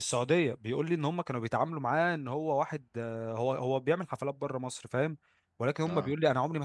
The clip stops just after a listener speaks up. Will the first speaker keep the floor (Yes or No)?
Yes